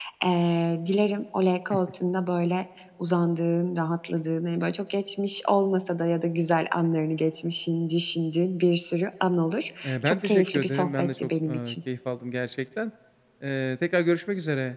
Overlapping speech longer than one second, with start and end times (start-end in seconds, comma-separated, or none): 10.0-11.8